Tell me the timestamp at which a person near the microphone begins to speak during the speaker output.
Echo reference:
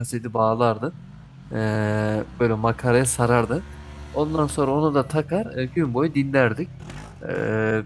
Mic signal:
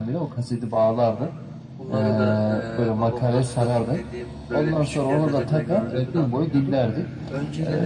1.8 s

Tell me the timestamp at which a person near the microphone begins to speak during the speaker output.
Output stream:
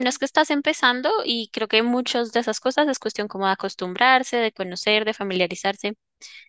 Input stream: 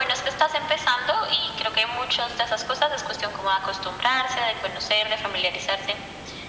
none

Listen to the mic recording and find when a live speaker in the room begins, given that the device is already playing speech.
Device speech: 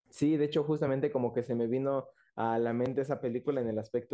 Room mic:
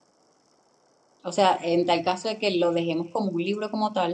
1.2 s

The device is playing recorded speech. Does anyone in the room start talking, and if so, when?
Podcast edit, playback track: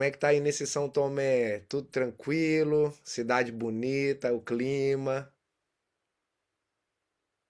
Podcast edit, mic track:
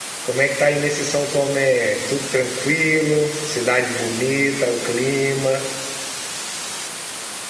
none

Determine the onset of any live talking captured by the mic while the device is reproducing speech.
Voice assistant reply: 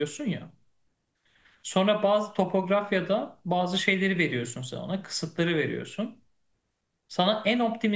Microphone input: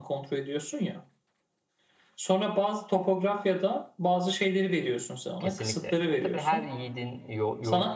5.4 s

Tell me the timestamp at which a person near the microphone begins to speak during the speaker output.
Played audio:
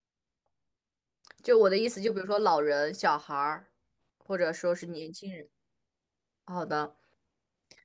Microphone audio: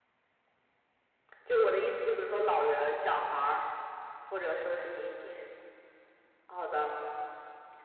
none

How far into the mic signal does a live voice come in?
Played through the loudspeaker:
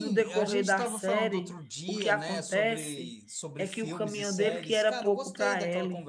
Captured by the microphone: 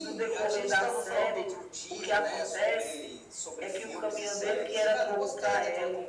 none

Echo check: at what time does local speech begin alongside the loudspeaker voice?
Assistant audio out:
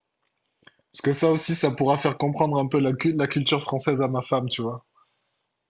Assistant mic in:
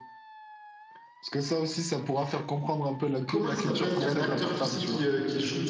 3.2 s

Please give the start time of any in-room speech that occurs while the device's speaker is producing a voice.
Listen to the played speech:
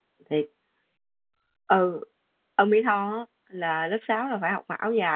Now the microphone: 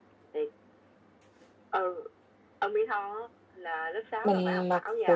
4.2 s

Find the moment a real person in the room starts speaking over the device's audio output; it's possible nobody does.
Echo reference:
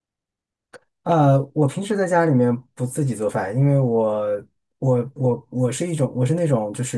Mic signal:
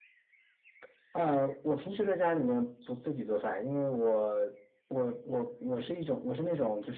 none

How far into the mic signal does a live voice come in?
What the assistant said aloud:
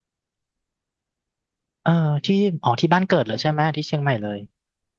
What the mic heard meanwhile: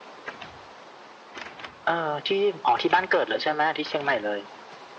none

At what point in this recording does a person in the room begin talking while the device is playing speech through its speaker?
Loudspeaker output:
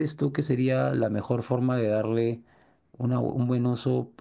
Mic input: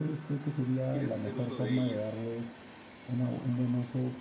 0.9 s

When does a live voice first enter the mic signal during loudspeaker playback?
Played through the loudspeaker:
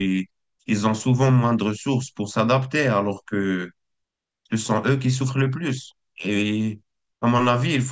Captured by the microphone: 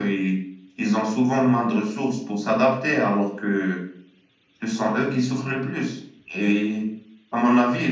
none

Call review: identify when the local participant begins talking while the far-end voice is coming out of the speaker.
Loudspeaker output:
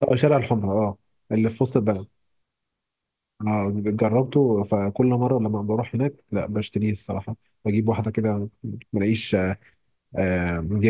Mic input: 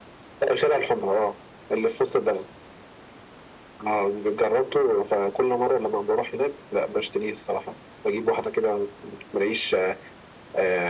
none

